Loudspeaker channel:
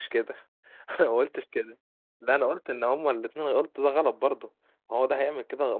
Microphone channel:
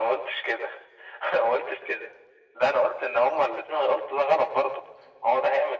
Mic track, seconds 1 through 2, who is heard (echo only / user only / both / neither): echo only